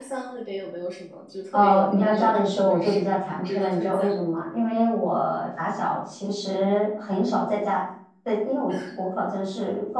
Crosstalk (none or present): present